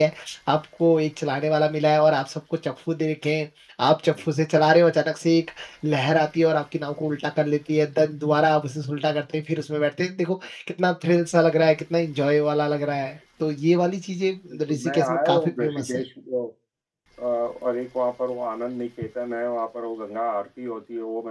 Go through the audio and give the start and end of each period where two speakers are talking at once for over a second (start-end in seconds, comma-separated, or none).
14.7-16.0